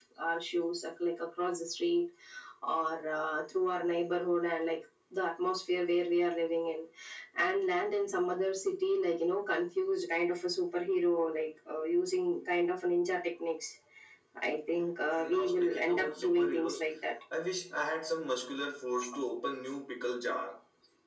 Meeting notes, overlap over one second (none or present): present